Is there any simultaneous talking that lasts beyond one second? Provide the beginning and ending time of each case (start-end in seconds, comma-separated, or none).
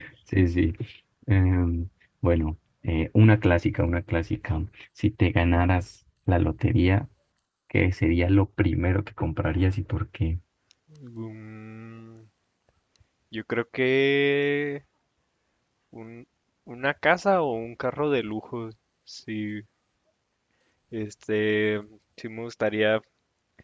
none